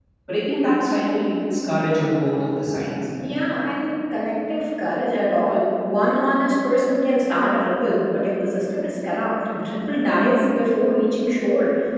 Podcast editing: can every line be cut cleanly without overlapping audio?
Yes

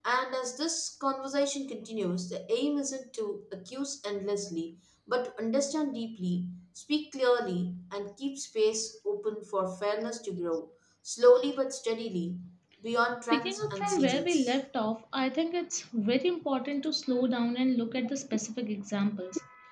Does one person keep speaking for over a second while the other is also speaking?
Yes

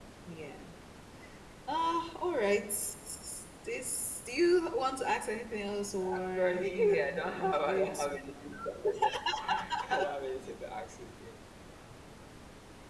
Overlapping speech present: Yes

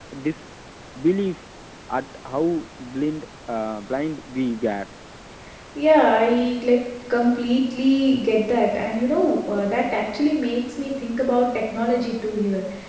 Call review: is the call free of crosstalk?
Yes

